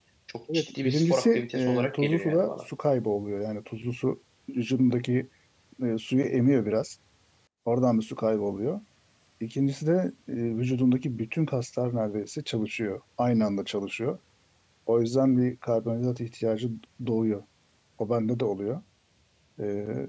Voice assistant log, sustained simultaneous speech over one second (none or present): present